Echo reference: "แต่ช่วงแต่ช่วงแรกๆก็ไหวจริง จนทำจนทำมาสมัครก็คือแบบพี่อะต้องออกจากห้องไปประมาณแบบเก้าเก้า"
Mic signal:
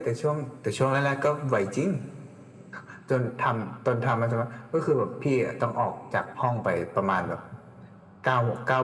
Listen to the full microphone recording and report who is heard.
echo only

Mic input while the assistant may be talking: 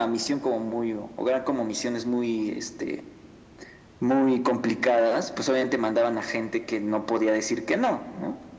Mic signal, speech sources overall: echo only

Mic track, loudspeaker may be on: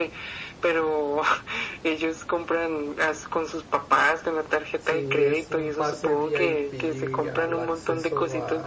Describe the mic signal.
both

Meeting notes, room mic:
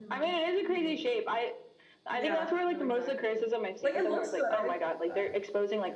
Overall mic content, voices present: both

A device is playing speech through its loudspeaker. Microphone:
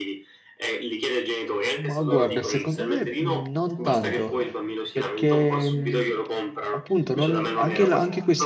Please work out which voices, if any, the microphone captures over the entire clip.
both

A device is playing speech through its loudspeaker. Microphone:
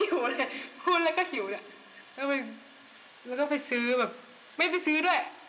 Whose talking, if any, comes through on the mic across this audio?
echo only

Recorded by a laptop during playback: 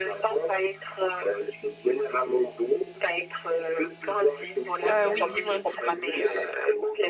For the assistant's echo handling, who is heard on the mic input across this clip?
both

